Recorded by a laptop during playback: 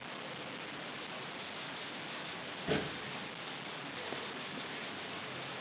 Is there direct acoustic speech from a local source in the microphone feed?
No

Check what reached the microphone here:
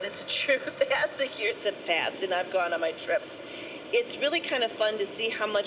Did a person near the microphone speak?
No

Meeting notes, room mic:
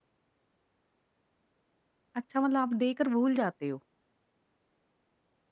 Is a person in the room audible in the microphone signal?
Yes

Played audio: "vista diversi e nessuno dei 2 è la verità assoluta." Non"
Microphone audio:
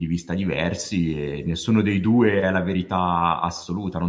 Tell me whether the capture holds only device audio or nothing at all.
Yes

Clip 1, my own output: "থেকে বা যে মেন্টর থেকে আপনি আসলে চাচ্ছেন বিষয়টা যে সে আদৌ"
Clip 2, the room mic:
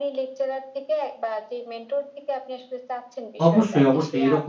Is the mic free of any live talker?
No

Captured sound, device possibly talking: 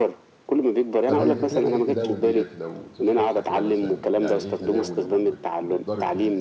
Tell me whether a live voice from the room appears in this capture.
Yes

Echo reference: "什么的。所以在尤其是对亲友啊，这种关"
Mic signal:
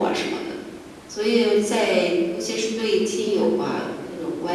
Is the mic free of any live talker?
Yes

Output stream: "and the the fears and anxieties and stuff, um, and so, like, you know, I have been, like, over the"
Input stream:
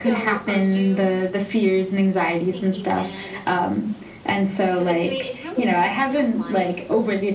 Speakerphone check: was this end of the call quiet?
No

